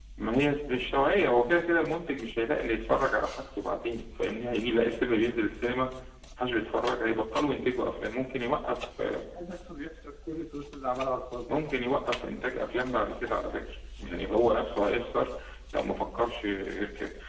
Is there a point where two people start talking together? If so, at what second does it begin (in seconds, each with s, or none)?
none